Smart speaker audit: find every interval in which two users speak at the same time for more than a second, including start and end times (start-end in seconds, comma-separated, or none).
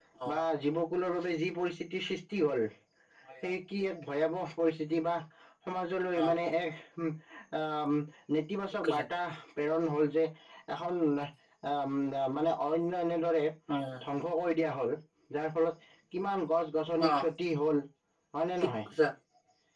none